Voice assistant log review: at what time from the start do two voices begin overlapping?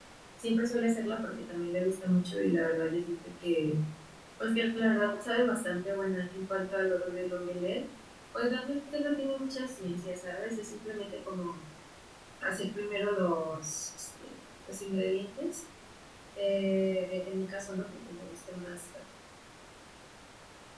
none

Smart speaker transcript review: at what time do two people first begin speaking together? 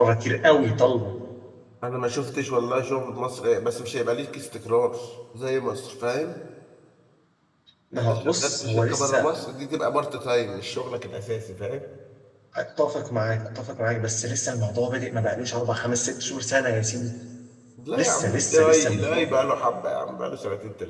8.0 s

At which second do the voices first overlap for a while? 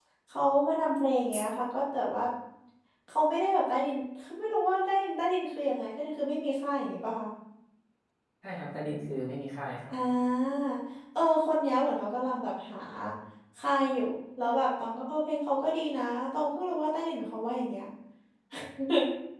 none

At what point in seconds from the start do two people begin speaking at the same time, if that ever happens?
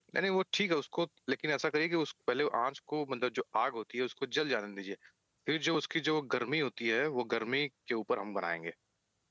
none

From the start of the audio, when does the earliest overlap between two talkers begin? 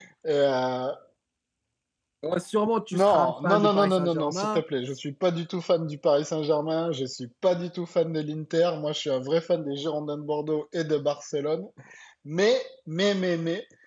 2.9 s

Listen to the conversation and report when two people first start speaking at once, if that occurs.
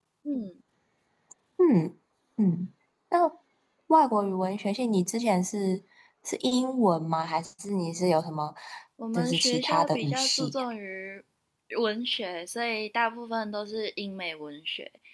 9.1 s

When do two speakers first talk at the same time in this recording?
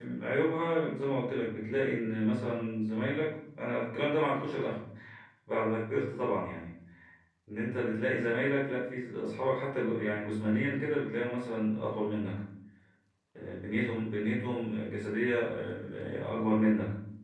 none

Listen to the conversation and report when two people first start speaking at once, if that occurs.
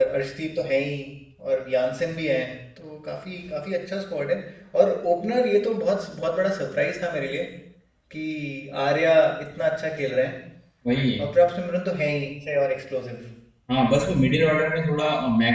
none

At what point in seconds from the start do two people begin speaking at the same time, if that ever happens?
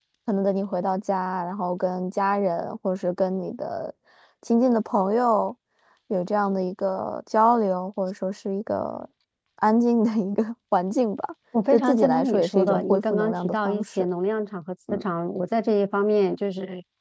11.5 s

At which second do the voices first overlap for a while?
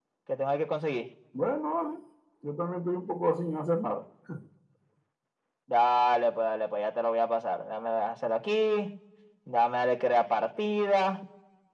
none

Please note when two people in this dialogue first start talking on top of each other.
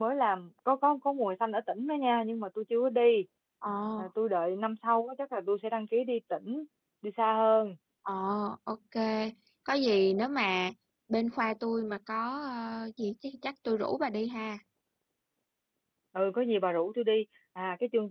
none

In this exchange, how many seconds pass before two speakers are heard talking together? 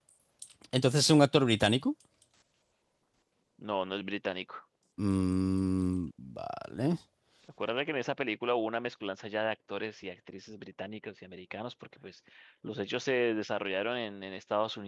none

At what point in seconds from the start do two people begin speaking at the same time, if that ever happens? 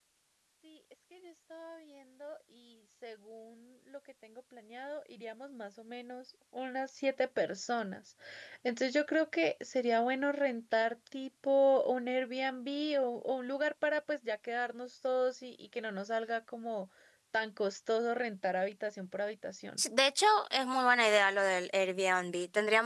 none

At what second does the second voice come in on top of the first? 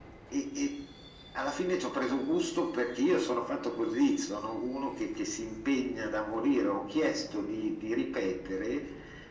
none

